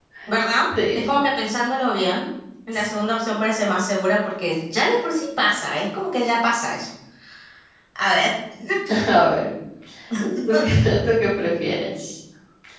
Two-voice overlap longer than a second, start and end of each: none

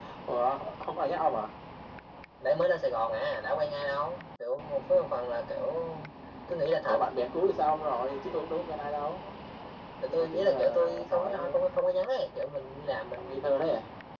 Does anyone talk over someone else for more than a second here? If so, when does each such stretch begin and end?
10.1-11.6

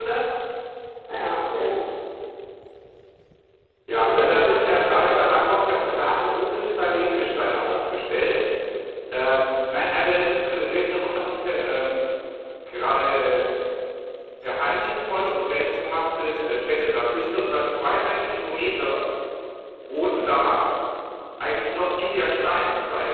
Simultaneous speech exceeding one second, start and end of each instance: 4.0-5.6

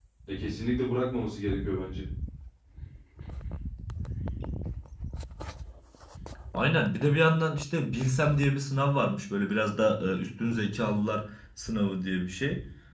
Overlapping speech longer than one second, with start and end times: none

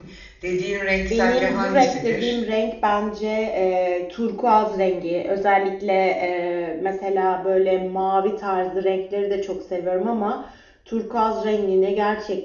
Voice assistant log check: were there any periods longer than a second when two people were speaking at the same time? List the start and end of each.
1.1-2.4

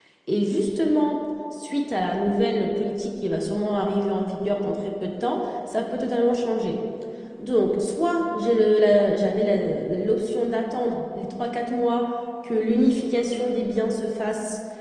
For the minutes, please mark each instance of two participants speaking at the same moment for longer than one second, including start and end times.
none

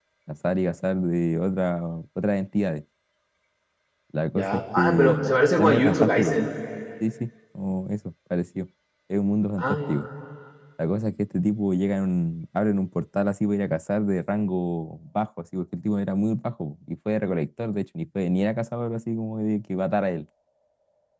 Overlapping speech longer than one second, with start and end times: 4.4-6.4

